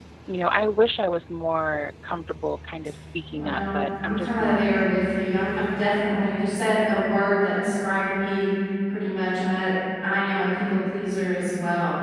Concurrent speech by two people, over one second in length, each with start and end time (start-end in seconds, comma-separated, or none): 3.4-4.7